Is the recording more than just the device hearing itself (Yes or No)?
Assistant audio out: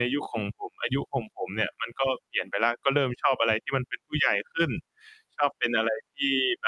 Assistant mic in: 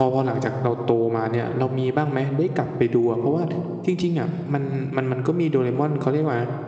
Yes